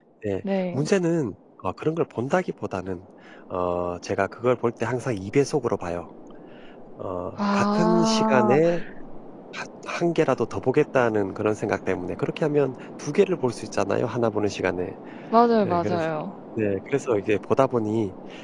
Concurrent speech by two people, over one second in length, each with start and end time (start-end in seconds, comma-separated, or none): 7.4-8.6